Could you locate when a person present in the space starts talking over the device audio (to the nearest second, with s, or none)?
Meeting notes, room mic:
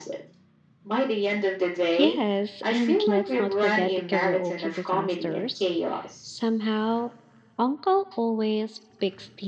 2 s